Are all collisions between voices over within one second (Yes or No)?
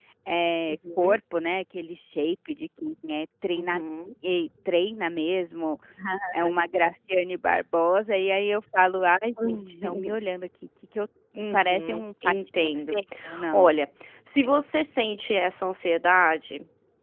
No